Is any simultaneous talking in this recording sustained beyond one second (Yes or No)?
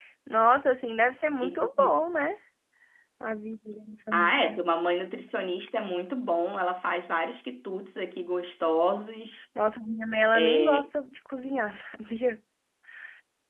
No